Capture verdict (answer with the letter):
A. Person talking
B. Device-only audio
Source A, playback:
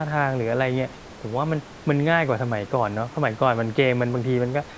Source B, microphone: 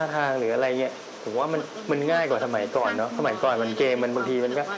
A